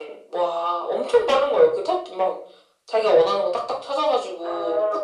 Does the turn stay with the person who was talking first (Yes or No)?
No